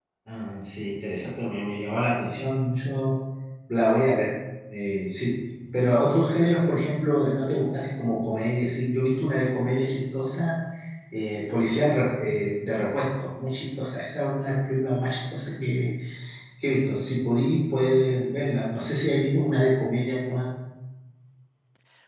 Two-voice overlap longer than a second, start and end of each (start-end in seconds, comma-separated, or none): none